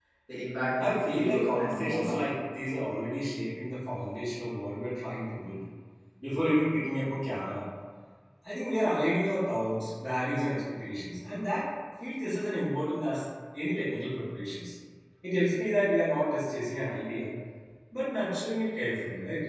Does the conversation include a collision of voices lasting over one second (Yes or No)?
Yes